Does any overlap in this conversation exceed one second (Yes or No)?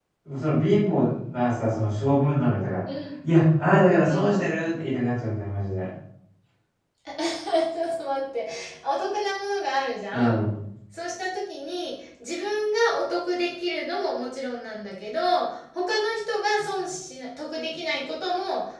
No